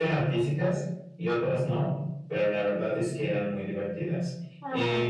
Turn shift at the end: No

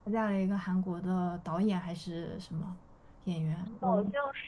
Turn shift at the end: Yes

